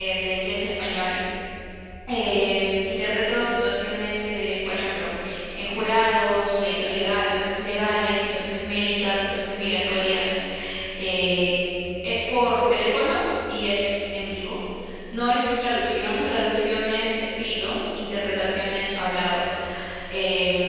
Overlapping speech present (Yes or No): No